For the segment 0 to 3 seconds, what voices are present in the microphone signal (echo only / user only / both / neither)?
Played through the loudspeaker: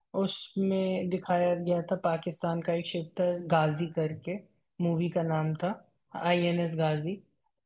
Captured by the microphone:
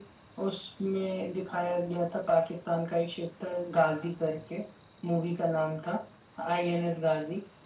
echo only